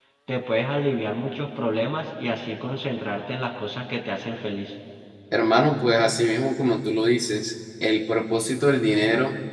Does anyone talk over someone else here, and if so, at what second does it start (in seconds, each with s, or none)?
none